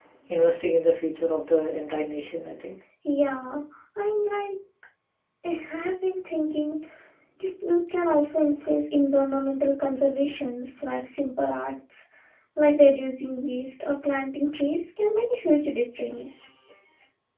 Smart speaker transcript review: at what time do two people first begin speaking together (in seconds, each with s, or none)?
none